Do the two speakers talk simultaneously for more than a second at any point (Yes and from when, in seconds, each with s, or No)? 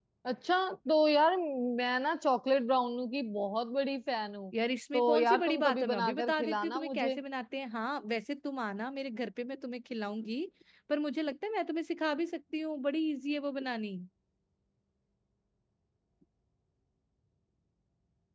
Yes, from 4.9 s